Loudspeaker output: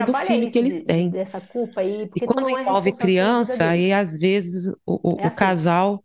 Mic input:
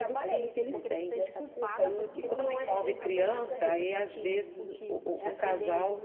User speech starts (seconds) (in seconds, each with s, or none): 0.7 s